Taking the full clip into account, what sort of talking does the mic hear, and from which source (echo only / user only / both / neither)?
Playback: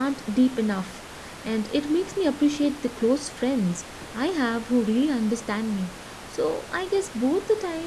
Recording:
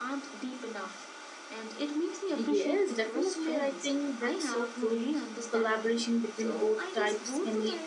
both